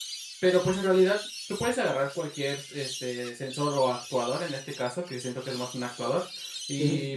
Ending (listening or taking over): listening